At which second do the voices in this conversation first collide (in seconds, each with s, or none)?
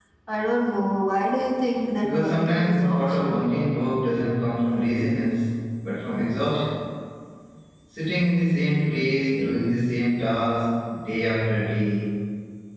2.0 s